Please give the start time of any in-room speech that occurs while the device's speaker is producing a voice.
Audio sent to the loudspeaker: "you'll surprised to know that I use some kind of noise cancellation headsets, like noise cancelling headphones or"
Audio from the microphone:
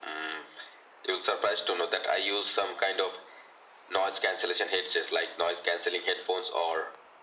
none

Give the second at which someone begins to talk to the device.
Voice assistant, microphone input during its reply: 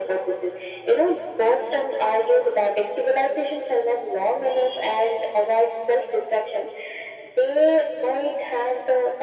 none

